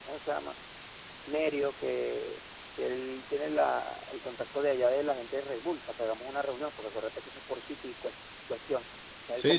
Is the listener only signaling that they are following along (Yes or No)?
No